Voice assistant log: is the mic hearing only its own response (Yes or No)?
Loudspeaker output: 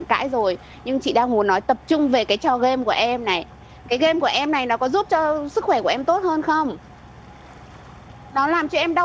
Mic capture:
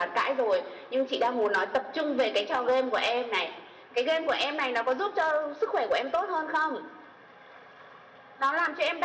Yes